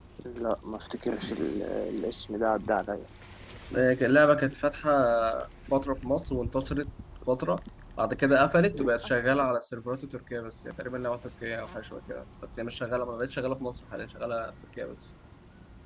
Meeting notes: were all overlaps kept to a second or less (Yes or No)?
Yes